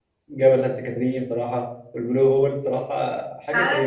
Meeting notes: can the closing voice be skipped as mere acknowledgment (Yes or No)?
No